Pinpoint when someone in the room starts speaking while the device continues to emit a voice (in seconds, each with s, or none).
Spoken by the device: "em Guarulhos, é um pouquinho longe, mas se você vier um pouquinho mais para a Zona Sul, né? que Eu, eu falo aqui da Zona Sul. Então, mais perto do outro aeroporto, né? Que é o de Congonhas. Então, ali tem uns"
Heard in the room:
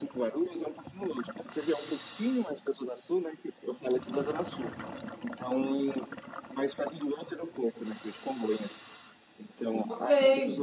9.7 s